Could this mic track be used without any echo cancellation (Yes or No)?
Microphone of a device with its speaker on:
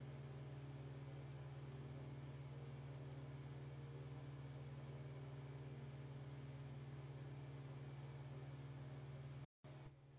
Yes